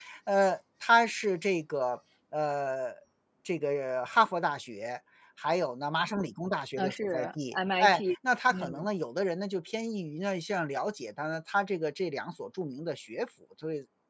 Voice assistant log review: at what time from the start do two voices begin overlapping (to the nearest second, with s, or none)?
7 s